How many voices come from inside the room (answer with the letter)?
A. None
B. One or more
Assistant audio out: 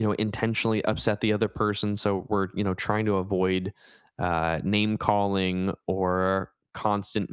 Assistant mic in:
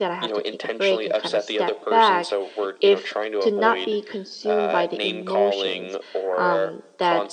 B